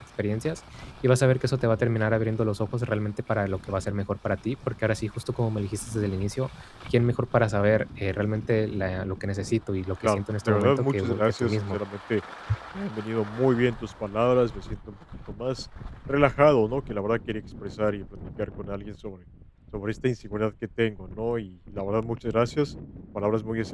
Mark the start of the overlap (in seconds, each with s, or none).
10.0 s